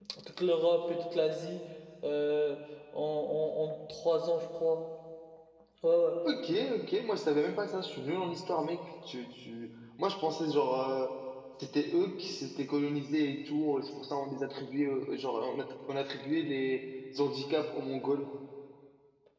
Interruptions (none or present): none